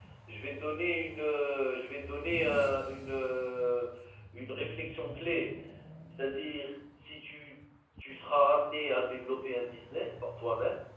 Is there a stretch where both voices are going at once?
No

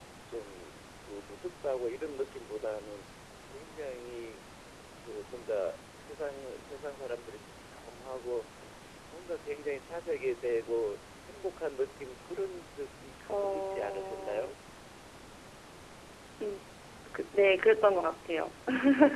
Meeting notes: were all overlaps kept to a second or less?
No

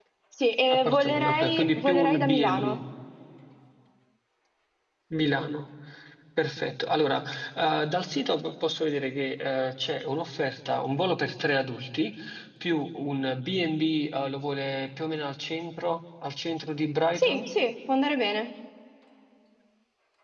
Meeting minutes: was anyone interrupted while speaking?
Yes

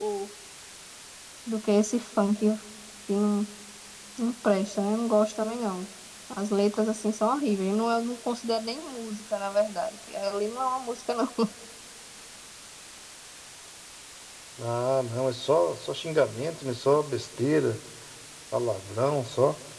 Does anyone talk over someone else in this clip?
No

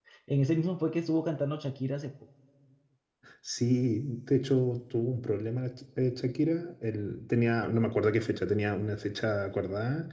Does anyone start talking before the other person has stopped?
No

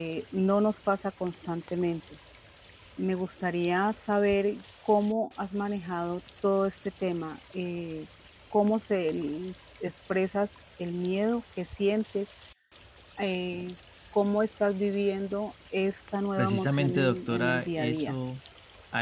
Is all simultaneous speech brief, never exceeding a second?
No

